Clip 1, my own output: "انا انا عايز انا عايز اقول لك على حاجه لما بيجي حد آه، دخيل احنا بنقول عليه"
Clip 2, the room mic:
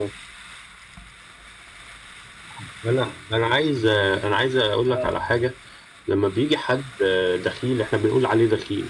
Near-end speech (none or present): present